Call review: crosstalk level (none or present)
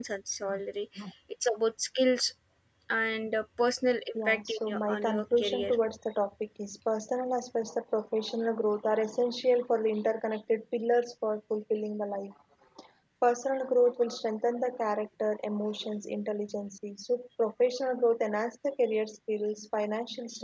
present